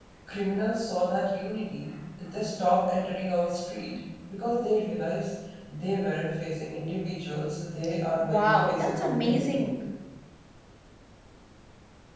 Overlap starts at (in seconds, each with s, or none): 8.2 s